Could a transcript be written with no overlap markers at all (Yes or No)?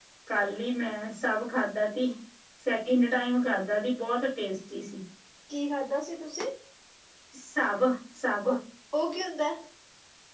Yes